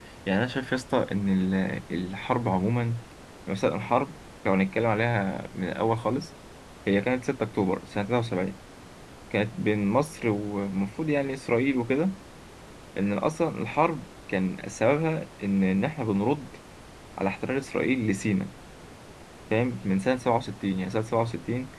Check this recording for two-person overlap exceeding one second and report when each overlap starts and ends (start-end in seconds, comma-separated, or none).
none